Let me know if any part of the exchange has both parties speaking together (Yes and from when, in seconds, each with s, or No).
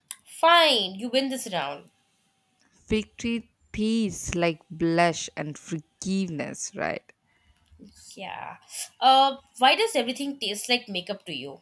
No